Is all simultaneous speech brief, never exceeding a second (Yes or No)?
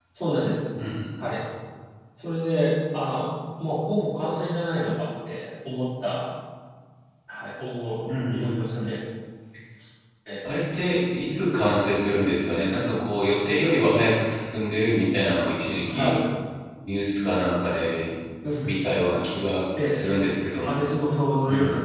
Yes